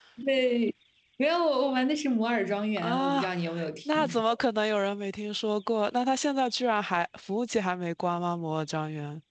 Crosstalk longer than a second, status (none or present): none